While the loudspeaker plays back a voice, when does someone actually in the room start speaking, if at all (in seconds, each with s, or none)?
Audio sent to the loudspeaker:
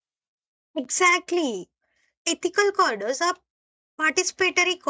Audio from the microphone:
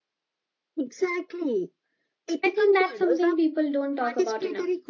2.4 s